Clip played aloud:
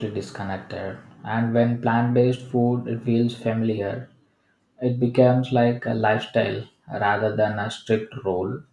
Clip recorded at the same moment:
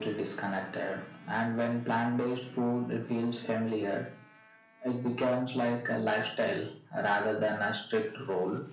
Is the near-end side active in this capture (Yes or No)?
No